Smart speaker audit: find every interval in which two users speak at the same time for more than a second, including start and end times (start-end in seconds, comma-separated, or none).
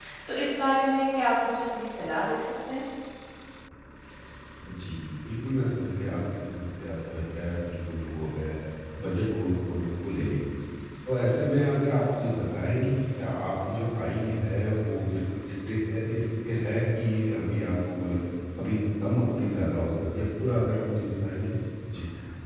none